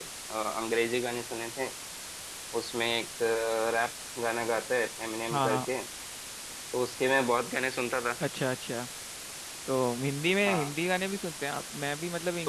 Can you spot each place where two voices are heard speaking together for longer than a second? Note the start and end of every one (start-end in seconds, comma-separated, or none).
none